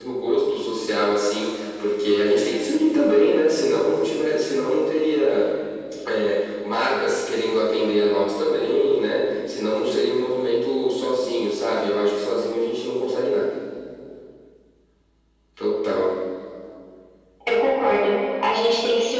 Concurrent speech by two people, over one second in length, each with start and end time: none

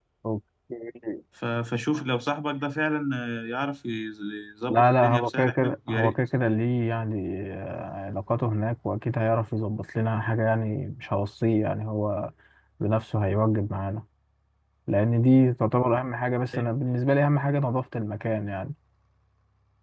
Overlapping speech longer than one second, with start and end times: 4.7-6.1

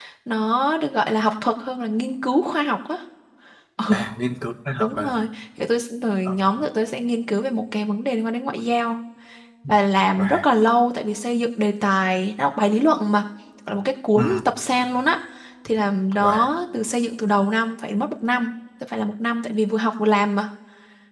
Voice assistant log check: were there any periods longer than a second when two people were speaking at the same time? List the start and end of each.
none

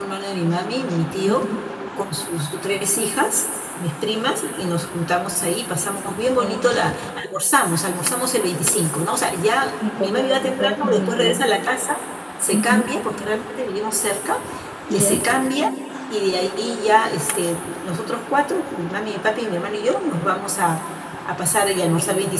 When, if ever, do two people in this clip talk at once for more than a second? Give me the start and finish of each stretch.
10.0-11.4

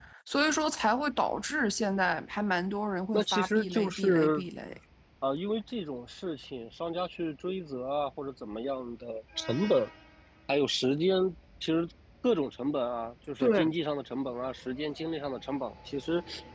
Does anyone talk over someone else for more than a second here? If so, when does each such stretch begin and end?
3.1-4.4

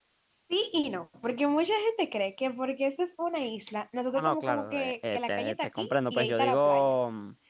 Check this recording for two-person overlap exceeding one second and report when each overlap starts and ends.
4.1-6.9

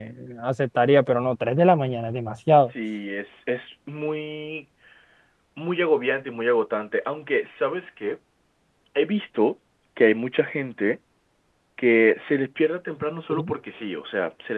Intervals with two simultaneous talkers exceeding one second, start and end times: none

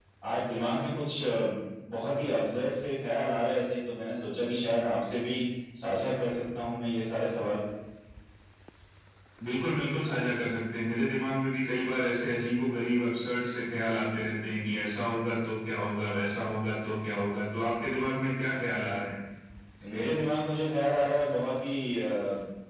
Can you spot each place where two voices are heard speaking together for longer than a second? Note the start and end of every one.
none

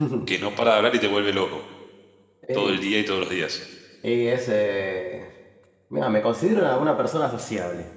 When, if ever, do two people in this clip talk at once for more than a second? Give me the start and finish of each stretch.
none

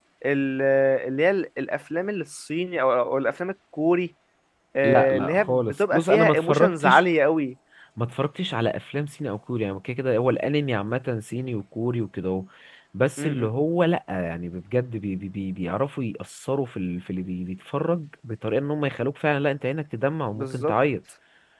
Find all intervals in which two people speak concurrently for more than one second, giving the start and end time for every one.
4.8-7.0

